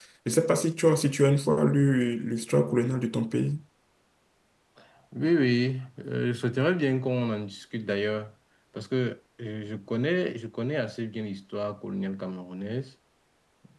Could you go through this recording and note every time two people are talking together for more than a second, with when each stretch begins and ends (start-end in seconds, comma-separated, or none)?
none